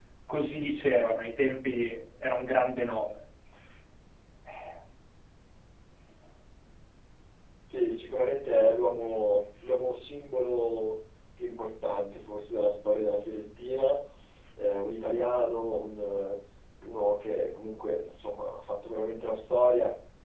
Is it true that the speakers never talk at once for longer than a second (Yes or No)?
Yes